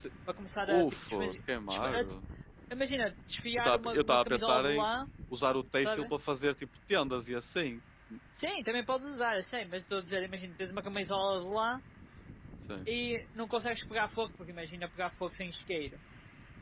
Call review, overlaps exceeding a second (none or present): present